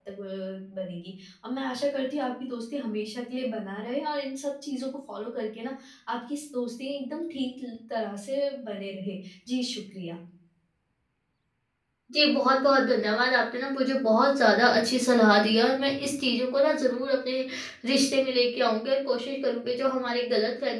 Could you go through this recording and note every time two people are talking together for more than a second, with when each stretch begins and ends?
none

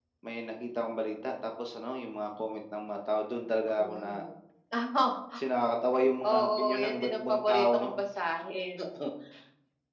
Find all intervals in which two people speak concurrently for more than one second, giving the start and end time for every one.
6.3-8.0

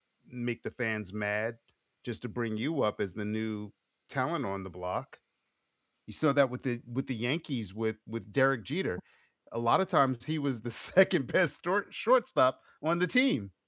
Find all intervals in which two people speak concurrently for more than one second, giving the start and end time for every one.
none

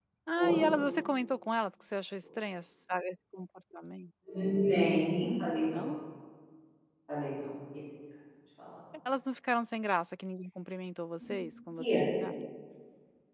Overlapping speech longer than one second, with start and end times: none

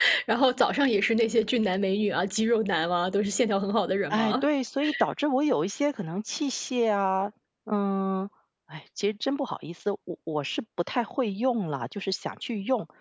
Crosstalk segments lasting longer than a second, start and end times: none

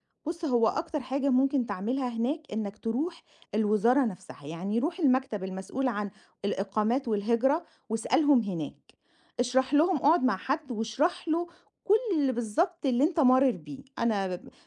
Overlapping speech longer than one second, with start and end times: none

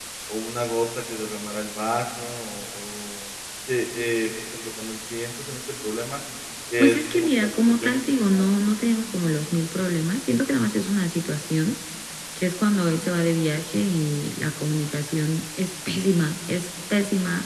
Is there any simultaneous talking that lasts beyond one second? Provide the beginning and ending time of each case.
6.8-8.6

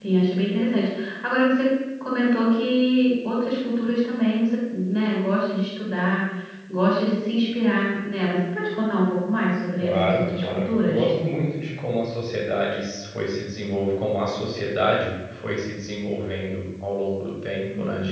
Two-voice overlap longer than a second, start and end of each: 9.8-11.1

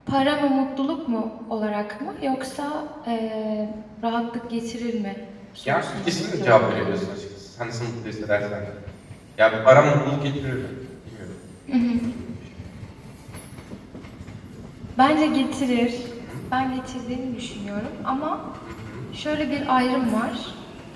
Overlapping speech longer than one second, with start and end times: 5.7-7.0

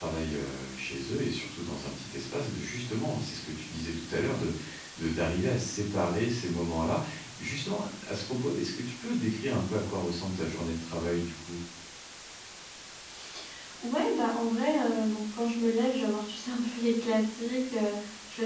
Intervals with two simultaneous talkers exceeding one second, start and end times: none

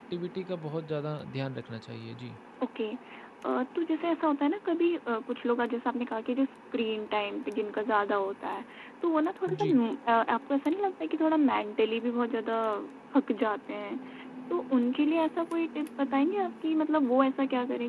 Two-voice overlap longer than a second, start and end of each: none

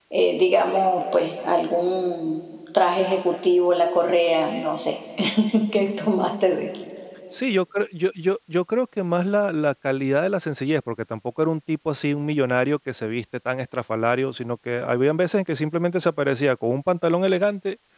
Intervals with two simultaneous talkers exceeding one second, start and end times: none

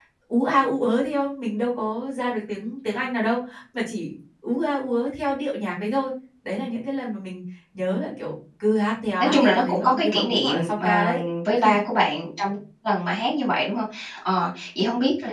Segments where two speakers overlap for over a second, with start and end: 9.2-11.2

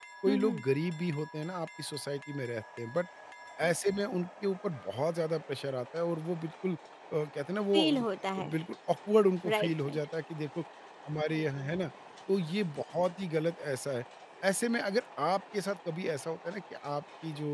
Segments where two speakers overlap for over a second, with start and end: none

